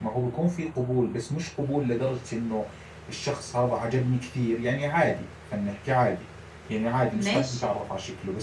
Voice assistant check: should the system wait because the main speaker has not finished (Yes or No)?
Yes